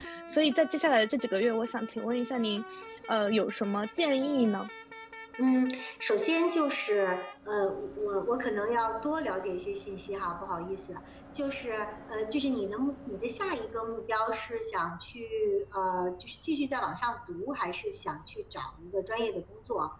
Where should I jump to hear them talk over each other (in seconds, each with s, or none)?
none